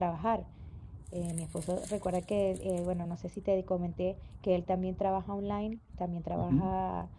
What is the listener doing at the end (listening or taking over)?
listening